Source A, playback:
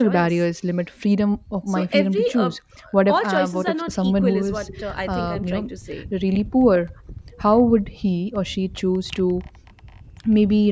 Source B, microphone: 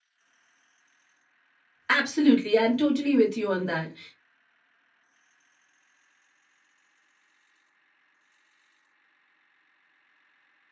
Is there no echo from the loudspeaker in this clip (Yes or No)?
Yes